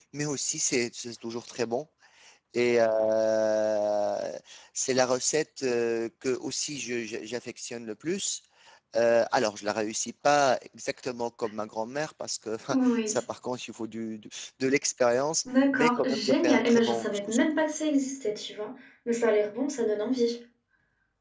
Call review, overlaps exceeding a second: present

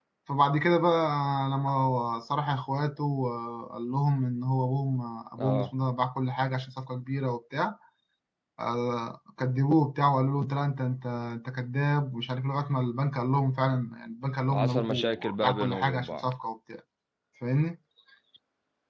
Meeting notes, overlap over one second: present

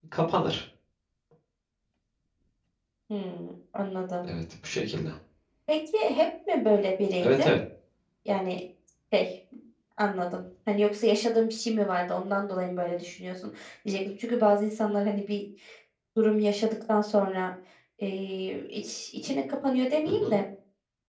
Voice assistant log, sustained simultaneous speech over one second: none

